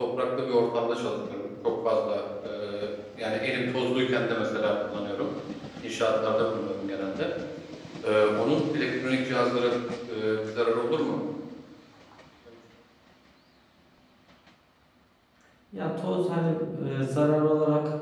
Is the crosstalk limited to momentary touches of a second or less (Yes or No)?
Yes